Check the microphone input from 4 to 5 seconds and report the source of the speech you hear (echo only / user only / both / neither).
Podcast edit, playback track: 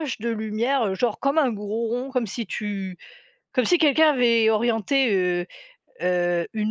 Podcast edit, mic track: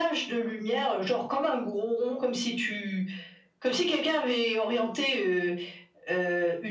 echo only